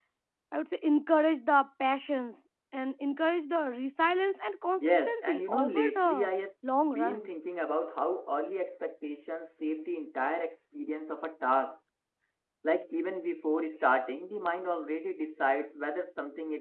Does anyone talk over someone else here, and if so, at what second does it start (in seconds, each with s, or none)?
4.8 s